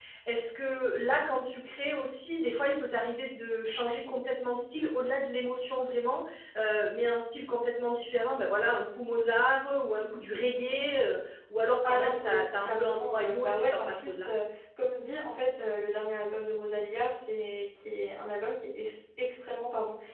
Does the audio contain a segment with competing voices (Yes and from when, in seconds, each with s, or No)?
Yes, from 11.8 s